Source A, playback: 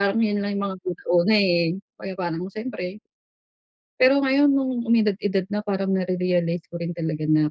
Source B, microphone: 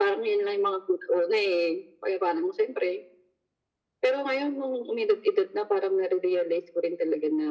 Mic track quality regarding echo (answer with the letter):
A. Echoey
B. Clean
A